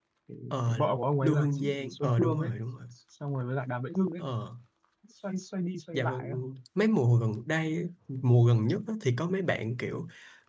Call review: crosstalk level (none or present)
present